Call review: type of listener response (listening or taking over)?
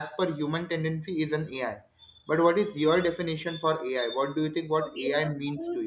taking over